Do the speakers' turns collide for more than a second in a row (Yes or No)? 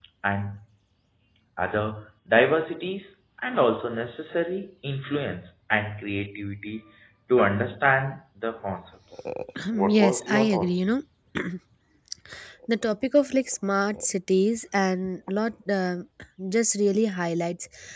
Yes